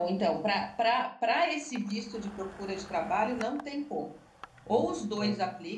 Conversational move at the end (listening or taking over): listening